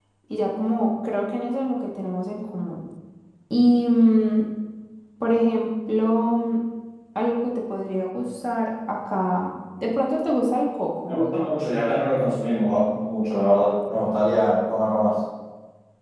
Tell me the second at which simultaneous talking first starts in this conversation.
none

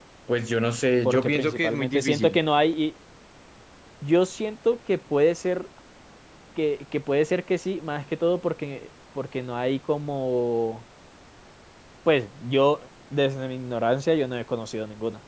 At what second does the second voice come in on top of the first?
1.1 s

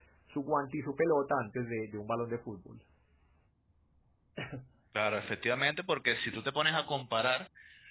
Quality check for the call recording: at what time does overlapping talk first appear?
none

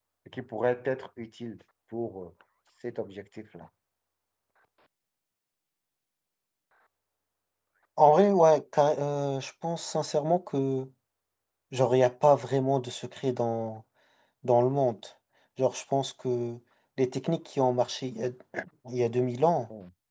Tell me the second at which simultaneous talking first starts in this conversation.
none

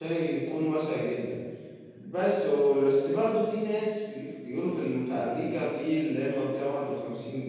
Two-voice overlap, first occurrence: none

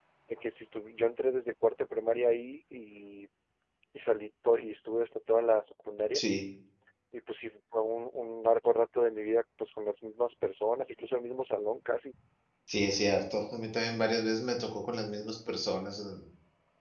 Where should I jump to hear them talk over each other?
none

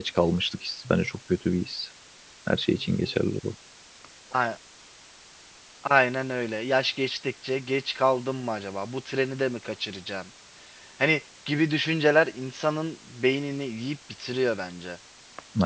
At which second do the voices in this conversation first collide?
none

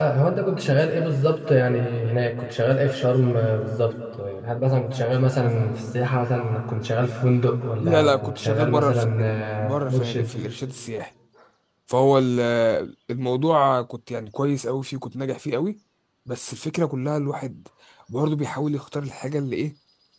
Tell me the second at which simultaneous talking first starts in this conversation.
7.8 s

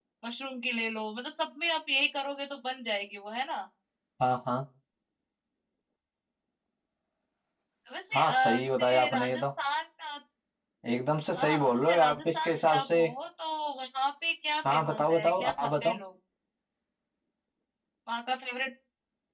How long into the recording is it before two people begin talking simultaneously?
8.1 s

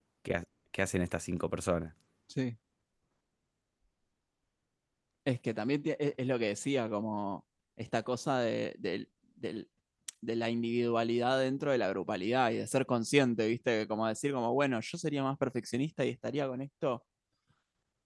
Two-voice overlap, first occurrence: none

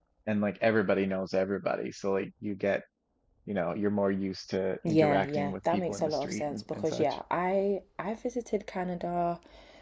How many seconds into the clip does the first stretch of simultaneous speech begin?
4.8 s

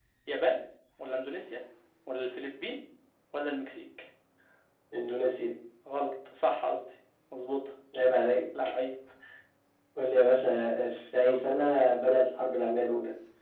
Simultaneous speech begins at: none

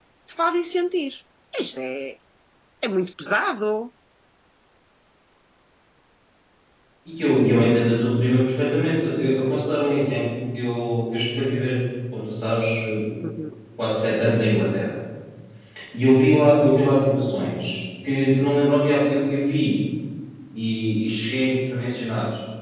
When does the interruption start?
none

